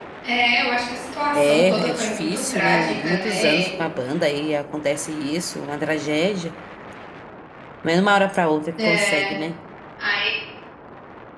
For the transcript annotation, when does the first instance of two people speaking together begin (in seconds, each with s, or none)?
1.4 s